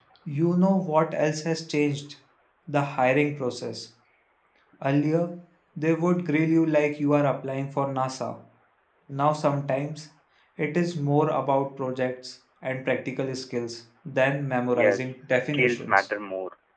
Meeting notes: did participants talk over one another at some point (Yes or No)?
Yes